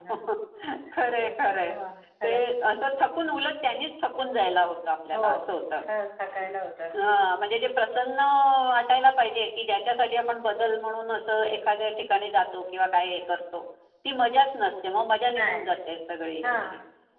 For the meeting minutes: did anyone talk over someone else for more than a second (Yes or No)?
No